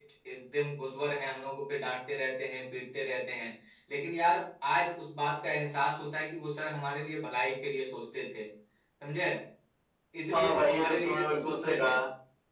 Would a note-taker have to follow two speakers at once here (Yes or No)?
Yes